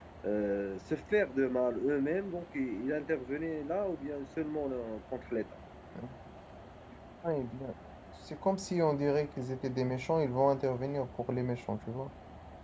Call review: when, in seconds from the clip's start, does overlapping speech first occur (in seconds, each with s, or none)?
none